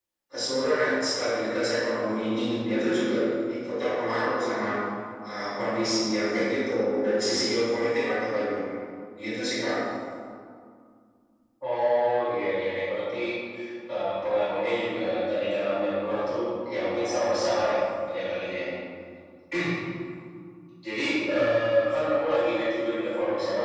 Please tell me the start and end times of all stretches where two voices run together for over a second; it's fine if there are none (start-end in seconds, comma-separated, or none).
none